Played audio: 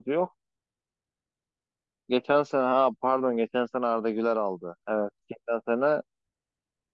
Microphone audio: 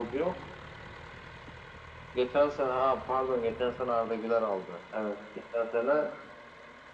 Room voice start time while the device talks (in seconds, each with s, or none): none